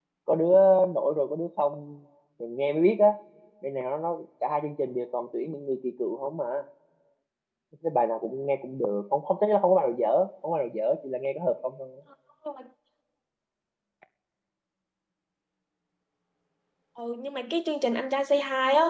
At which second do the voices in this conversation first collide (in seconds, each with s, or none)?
none